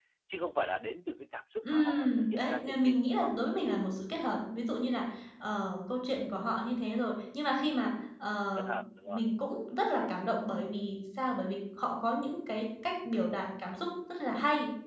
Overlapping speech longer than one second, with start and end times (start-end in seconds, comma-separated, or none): 1.6-3.3